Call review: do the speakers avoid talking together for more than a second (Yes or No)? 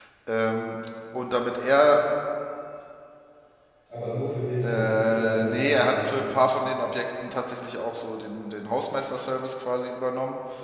No